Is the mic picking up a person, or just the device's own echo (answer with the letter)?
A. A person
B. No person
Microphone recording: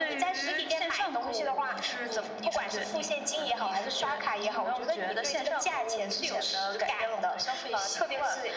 B